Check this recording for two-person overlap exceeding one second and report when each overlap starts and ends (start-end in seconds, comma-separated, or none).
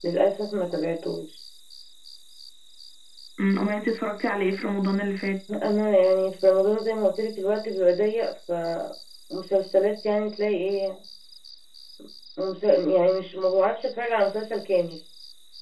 none